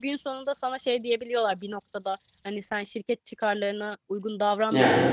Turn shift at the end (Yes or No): No